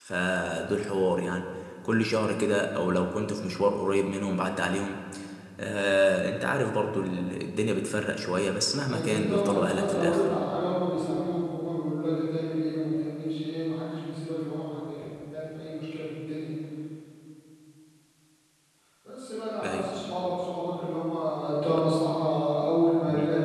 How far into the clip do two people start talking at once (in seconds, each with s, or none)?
8.9 s